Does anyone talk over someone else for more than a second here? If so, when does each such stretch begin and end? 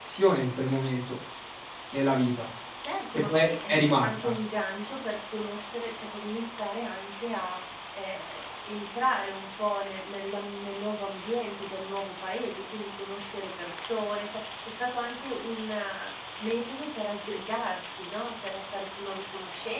3.1-4.3

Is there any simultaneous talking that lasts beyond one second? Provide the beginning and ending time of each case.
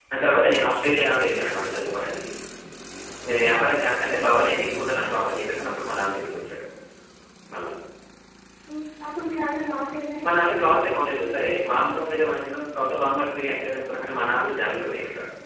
none

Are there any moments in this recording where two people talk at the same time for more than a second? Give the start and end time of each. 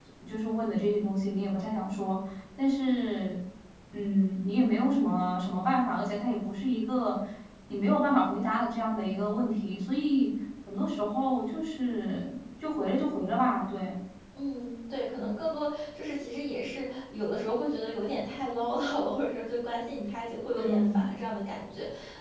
none

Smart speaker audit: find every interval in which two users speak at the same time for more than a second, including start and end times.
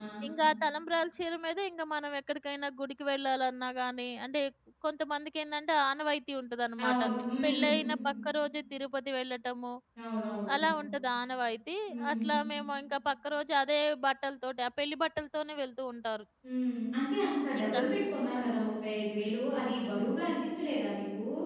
none

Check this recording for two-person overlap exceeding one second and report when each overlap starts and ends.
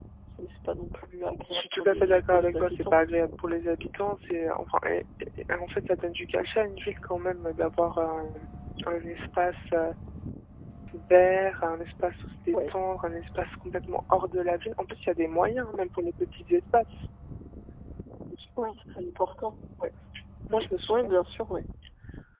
1.5-2.9

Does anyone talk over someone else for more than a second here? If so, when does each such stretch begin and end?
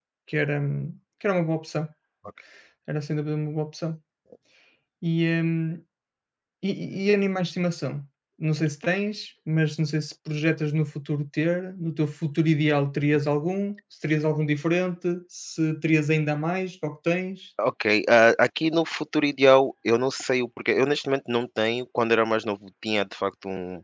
none

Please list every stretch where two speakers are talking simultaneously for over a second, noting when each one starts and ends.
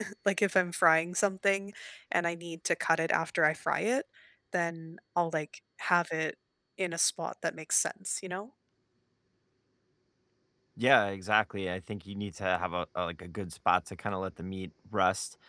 none

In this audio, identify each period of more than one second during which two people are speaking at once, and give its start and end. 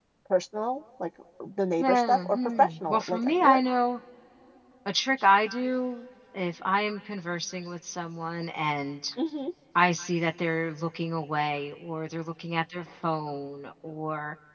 1.8-3.6

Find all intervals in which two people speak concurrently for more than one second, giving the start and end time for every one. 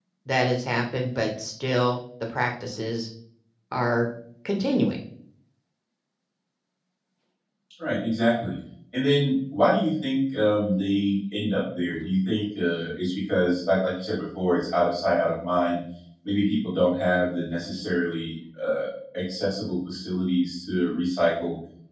none

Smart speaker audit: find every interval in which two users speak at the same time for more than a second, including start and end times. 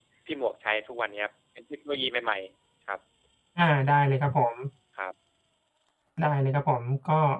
none

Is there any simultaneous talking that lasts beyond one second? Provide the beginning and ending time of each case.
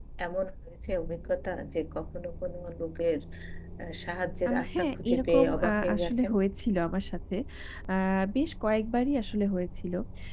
4.5-6.3

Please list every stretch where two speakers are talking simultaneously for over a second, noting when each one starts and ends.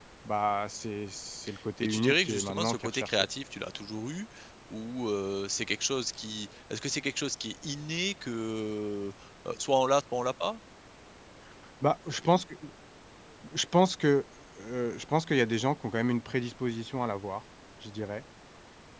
1.8-3.2

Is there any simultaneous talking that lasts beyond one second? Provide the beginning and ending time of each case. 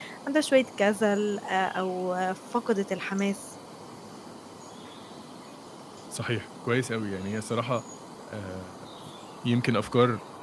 none

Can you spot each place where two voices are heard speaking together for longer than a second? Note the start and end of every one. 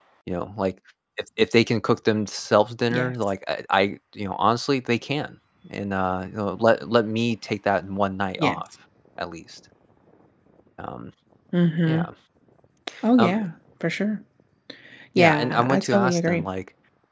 15.2-16.5

